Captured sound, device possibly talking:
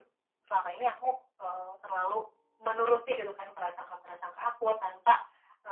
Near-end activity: none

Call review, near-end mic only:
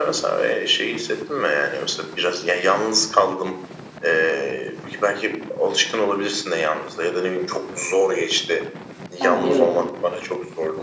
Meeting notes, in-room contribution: present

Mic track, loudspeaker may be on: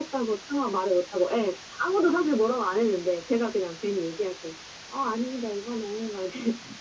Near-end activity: none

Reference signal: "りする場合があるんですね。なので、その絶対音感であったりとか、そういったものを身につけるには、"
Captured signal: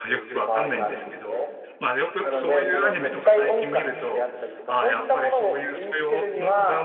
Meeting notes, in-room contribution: present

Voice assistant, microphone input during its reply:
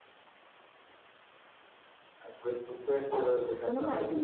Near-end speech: present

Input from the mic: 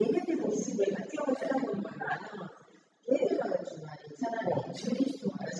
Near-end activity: none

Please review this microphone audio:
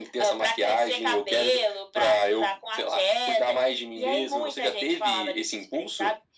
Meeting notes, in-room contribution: none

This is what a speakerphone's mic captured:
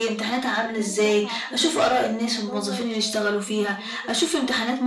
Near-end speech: present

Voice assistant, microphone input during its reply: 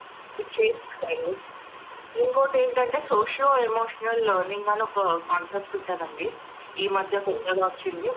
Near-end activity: present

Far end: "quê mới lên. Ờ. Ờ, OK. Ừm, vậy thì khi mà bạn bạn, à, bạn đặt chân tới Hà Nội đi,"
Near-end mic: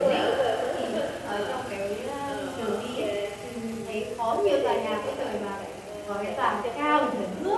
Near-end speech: present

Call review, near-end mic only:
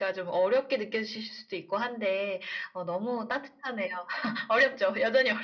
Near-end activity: none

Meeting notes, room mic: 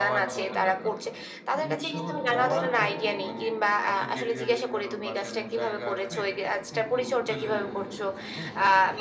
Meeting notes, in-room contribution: present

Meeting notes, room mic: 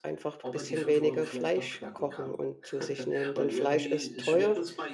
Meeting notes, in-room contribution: present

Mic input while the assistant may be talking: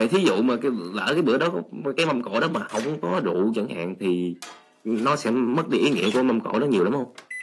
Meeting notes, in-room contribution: none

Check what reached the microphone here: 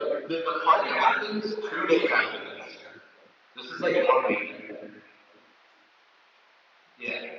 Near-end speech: none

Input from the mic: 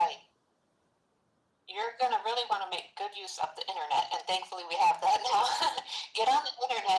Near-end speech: none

